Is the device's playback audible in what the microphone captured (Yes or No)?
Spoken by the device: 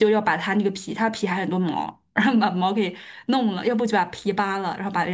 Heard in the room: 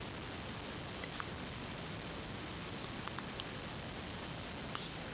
No